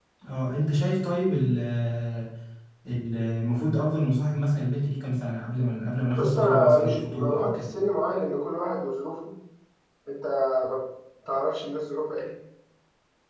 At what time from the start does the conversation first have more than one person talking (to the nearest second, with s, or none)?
6 s